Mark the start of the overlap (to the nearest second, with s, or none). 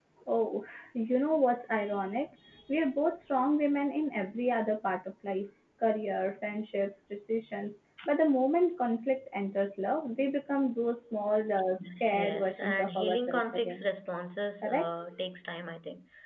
12 s